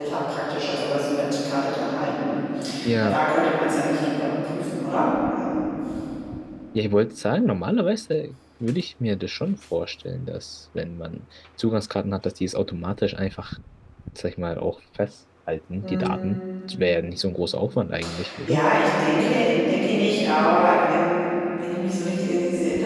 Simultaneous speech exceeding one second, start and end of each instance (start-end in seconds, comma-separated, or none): none